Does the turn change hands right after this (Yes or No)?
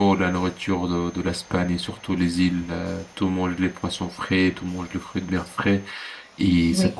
No